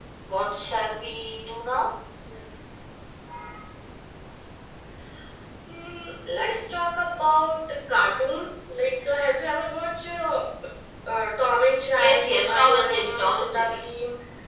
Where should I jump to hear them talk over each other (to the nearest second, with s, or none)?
12 s